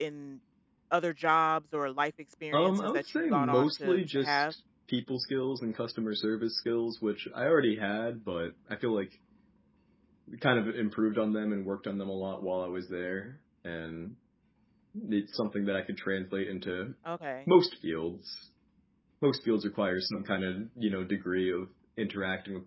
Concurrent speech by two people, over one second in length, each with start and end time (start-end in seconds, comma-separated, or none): 2.5-4.4